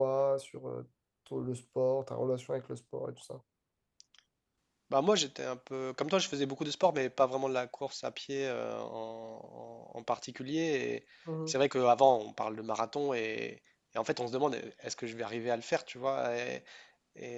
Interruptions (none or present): none